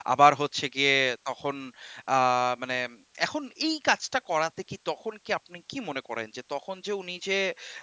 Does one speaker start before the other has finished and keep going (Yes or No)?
No